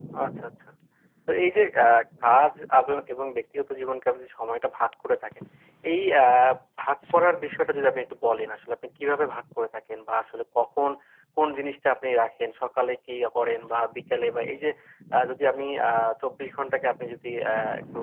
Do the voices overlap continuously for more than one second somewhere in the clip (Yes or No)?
No